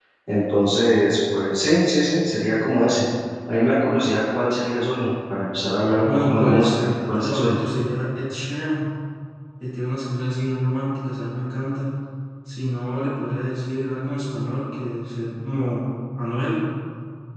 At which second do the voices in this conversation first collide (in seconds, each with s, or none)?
6.0 s